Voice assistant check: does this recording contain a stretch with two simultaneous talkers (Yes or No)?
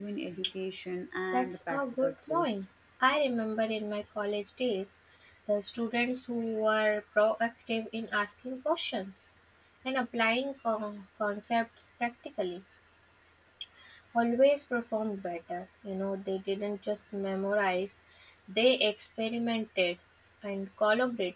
Yes